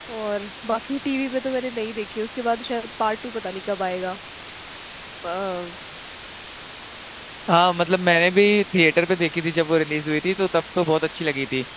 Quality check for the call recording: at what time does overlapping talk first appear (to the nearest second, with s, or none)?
none